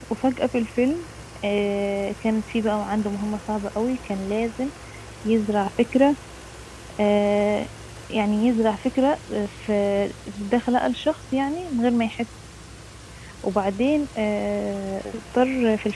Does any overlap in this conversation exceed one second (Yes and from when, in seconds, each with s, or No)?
No